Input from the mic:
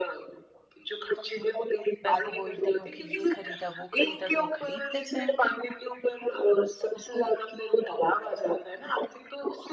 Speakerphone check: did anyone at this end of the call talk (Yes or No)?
Yes